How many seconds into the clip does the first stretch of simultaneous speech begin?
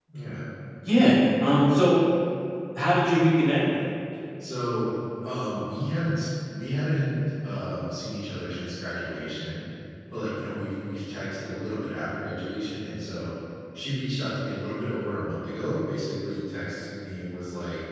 none

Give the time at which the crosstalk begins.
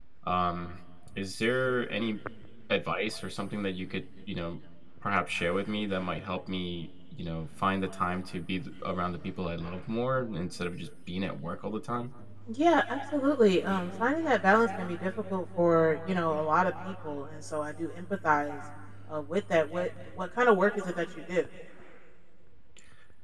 none

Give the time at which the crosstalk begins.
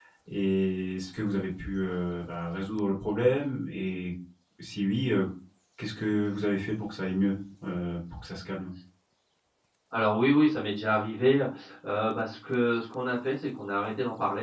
none

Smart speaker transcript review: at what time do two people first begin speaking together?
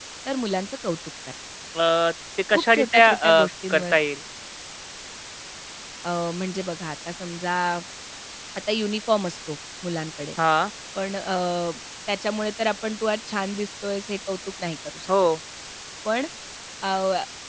2.5 s

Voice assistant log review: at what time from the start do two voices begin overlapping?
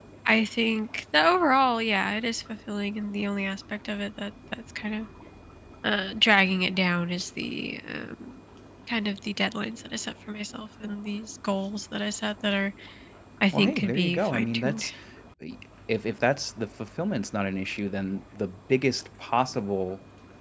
13.5 s

